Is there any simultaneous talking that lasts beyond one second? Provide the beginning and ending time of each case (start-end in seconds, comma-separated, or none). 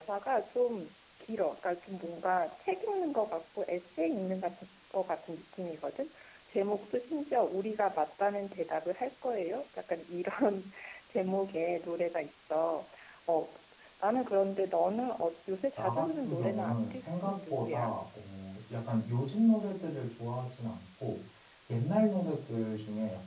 15.8-18.0